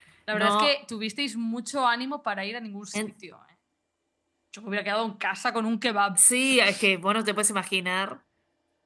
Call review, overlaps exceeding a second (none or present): none